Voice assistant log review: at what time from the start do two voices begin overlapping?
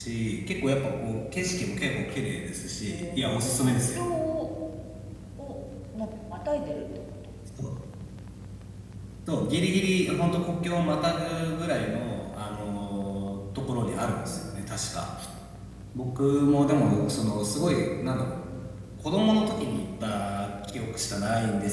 2.9 s

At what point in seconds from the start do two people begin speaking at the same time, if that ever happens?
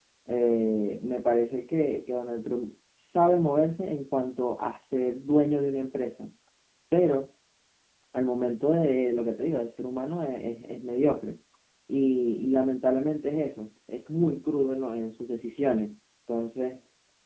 none

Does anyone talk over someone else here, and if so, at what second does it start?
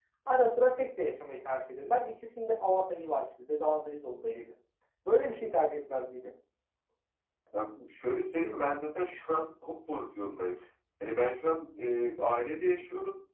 none

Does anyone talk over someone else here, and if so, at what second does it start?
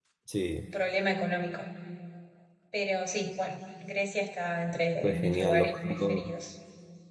5.0 s

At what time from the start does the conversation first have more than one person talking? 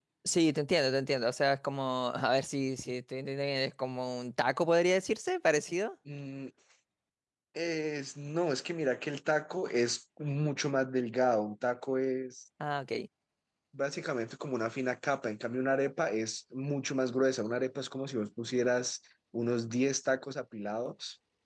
none

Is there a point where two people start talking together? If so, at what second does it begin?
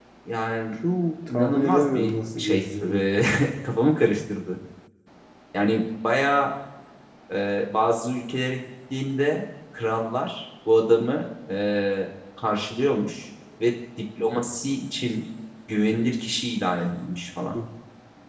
1.3 s

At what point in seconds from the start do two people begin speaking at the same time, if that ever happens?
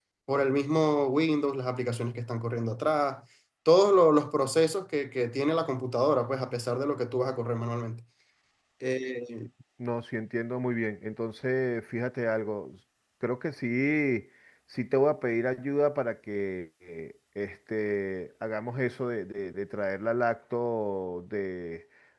none

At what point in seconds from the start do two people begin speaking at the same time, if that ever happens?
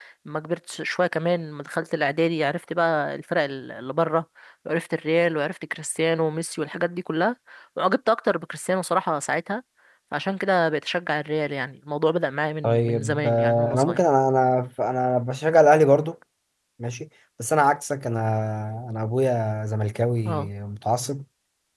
12.6 s

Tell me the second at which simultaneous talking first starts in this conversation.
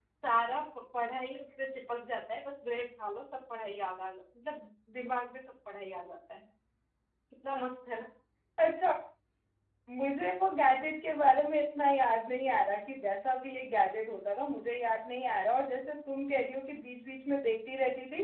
none

